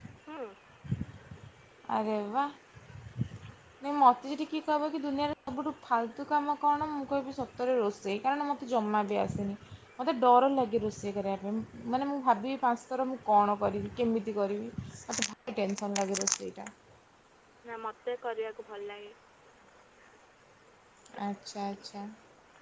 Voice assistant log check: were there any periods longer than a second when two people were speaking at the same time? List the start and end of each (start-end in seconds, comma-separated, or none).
none